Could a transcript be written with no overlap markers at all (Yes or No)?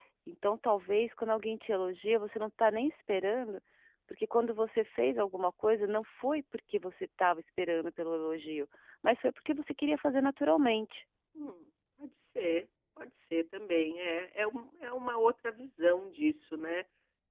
Yes